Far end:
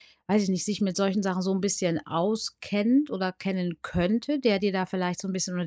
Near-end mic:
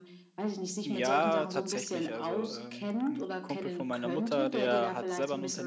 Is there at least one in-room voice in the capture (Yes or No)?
Yes